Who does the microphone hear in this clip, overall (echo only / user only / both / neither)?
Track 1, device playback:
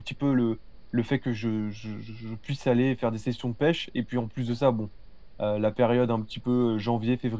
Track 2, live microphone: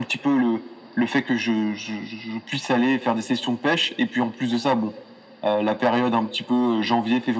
echo only